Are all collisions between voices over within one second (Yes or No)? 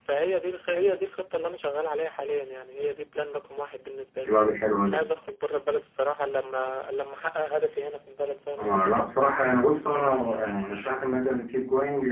Yes